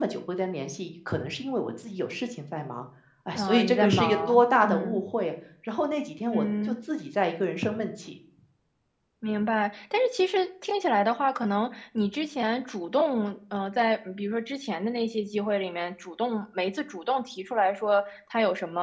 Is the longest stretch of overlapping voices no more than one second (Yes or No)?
No